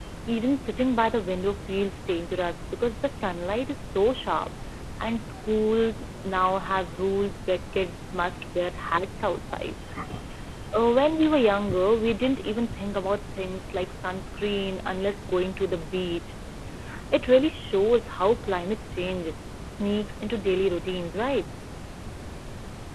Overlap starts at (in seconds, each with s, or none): none